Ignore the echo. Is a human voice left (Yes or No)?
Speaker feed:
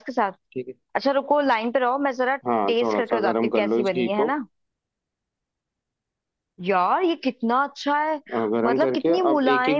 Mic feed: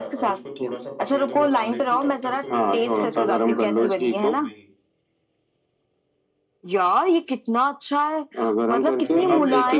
Yes